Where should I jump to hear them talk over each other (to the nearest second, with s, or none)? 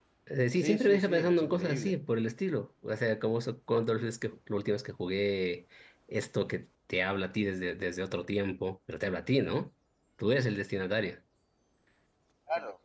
1 s